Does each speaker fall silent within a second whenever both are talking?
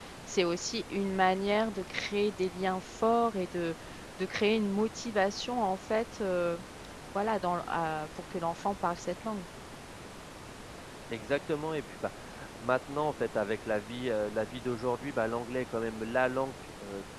Yes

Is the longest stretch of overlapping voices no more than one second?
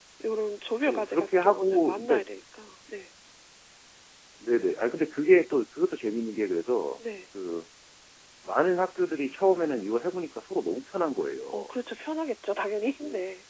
No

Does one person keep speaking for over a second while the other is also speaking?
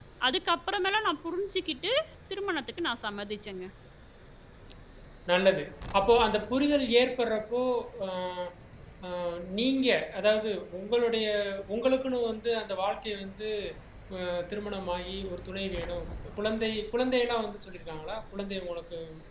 No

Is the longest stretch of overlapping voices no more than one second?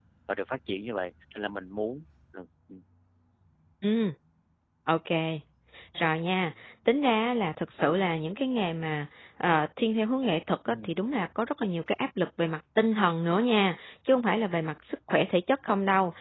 Yes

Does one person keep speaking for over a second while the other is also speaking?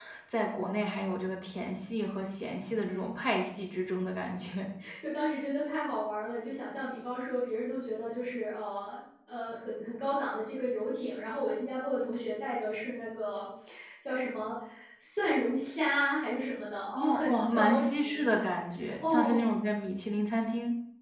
Yes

